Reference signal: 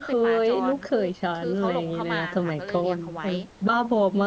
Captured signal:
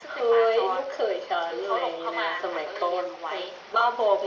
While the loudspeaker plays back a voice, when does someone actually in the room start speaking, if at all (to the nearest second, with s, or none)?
none